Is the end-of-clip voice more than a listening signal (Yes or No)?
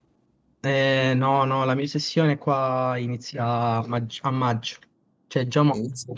No